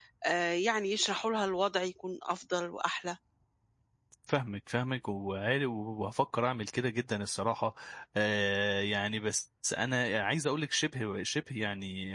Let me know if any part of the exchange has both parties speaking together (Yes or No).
No